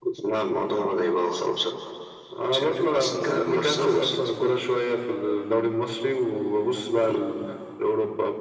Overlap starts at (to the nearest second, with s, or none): 3 s